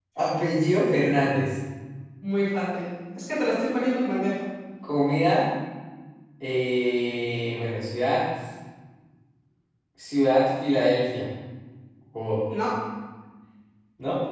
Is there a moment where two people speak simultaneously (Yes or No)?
No